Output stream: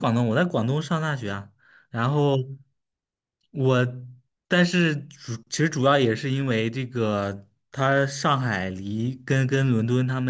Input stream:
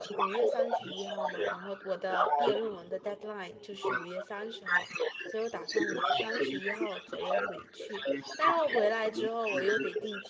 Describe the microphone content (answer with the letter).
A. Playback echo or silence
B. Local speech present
B